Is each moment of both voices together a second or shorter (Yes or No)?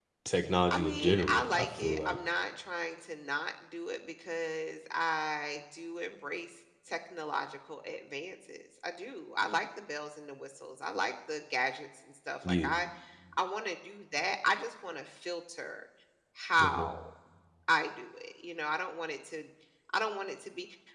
No